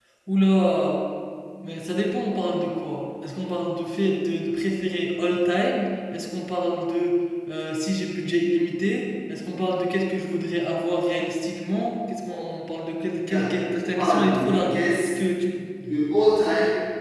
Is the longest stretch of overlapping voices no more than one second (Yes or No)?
No